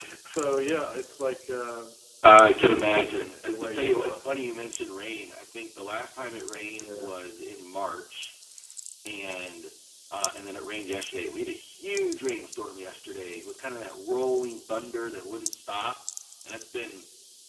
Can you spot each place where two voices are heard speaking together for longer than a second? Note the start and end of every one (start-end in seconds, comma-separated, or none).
2.6-4.2